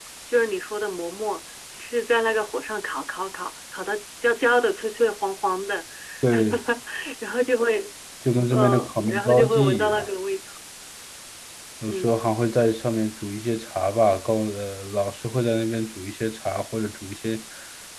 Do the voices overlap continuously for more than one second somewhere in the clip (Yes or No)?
Yes